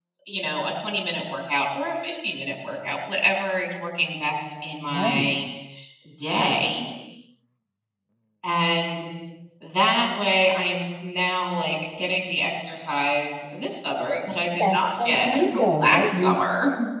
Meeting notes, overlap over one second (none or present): present